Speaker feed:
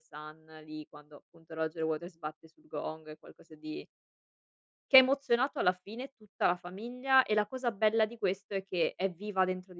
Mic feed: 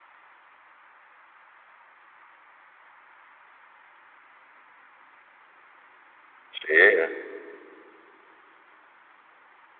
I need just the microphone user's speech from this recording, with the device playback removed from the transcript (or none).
Sì, eh